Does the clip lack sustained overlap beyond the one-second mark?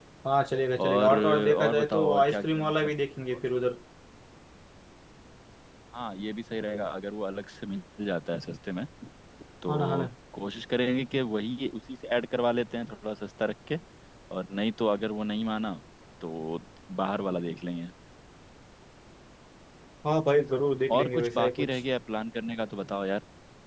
No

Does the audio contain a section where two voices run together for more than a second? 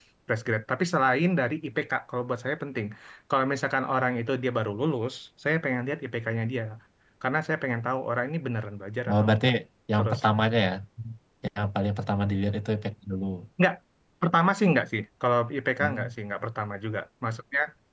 No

